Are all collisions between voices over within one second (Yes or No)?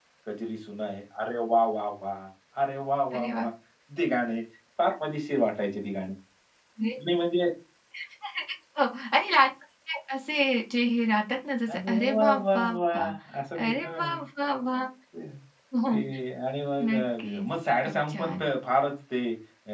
No